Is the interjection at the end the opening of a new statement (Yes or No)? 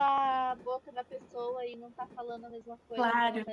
Yes